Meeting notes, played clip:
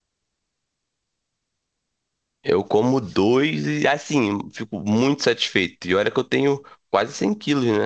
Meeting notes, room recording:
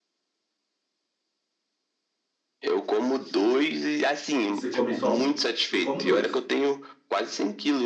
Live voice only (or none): E você come só um? Eu como dois.